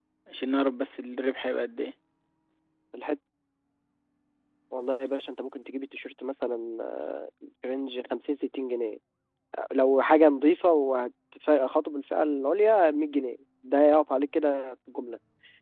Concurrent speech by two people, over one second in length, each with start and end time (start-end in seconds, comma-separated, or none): none